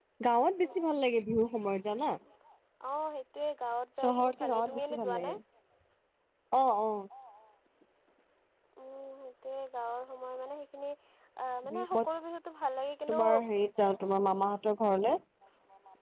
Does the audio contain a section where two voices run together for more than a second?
Yes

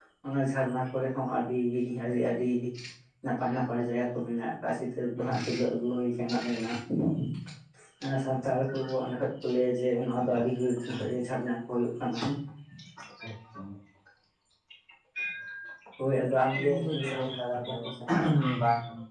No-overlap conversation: No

